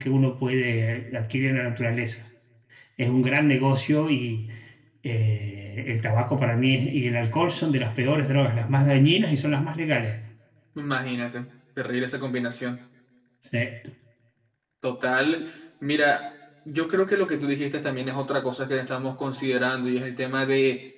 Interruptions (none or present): none